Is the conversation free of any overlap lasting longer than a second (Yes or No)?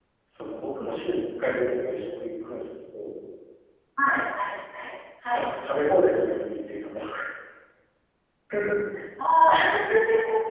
Yes